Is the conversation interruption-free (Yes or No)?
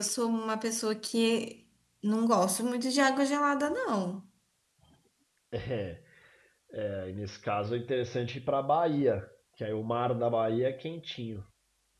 Yes